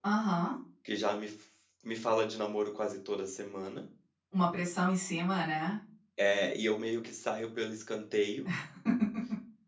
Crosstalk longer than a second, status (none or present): none